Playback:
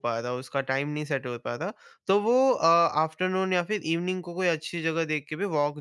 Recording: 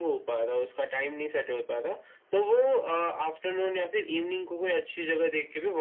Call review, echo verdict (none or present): present